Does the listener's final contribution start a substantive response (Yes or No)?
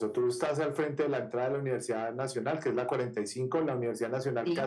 No